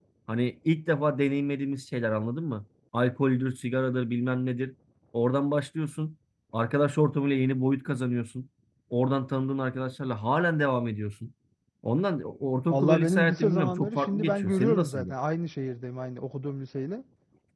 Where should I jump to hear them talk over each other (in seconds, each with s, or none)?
12.7 s